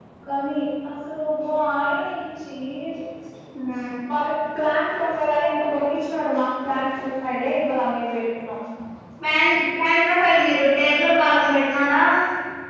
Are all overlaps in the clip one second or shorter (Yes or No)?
Yes